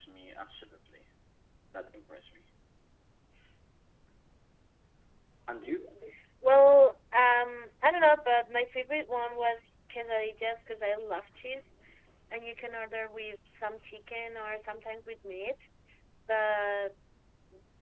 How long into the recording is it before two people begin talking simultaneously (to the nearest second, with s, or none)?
none